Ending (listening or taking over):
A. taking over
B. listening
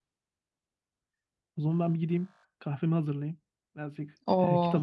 A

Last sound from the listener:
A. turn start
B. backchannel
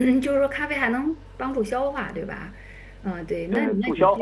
A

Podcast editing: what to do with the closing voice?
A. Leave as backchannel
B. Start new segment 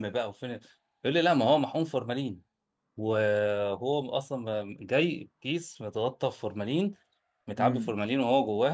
A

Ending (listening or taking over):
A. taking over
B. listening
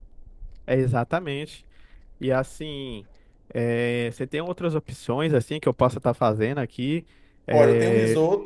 A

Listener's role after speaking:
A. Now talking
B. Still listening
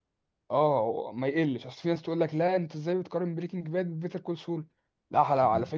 B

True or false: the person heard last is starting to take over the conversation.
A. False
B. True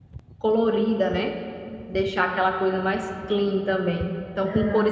A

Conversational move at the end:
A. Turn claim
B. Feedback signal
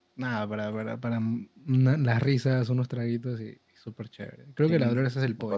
A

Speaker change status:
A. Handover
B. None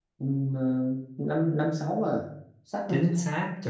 A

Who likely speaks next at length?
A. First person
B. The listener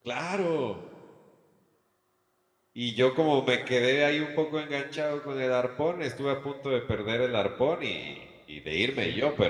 A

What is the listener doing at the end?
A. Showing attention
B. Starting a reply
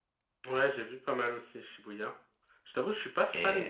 A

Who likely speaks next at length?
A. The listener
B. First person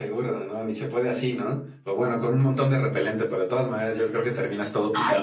A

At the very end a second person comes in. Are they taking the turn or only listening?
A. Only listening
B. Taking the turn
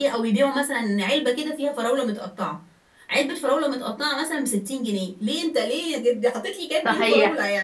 B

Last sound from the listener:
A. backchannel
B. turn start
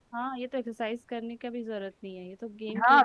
B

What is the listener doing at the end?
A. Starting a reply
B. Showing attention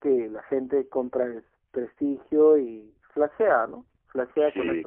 A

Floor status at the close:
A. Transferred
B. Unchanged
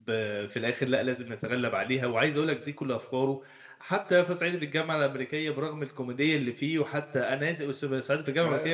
B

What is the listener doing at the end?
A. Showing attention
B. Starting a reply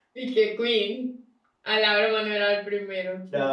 B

